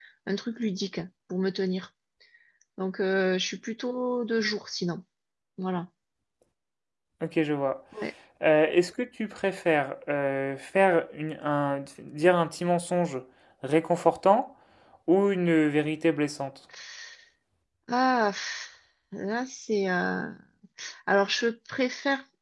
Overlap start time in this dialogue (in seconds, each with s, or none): none